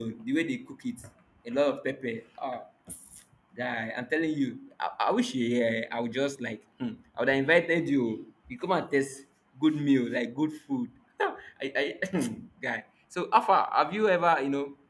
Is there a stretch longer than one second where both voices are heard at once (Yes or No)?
No